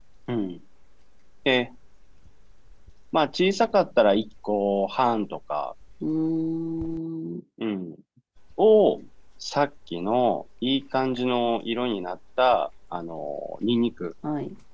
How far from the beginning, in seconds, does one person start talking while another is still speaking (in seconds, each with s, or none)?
none